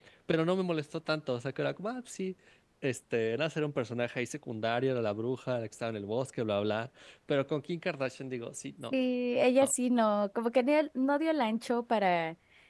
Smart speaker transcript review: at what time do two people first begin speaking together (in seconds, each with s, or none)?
none